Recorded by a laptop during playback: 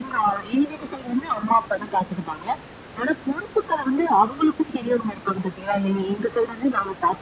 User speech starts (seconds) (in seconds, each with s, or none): none